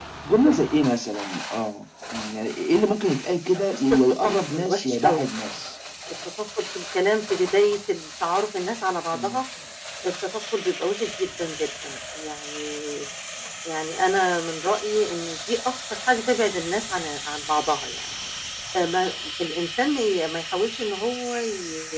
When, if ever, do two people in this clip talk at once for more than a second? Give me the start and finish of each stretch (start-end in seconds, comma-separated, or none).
3.7-5.3